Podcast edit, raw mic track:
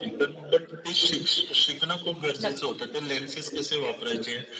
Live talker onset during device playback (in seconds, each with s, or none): 2.4 s